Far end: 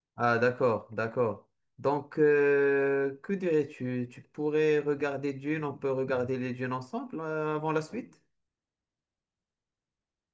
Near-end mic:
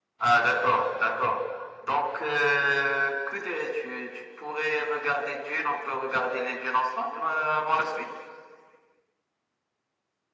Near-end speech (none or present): none